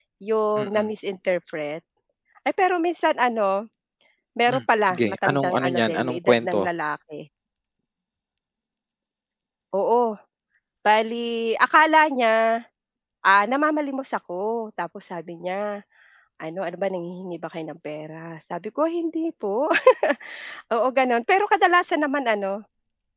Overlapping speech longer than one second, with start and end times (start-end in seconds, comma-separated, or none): 4.5-6.6